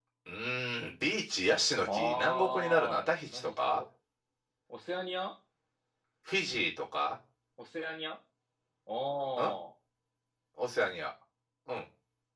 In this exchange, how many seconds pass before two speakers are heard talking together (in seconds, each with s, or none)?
1.8 s